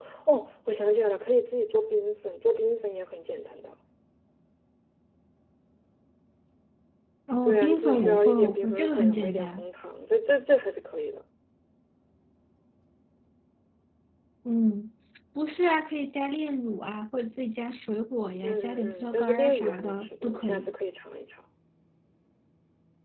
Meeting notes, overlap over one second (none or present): present